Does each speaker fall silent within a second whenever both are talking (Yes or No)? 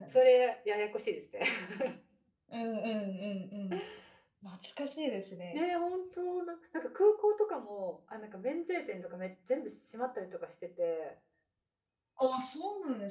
Yes